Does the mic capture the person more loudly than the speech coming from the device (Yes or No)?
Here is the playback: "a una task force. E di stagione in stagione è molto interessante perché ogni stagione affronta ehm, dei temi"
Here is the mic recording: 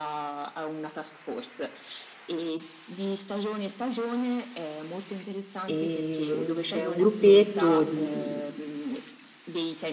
Yes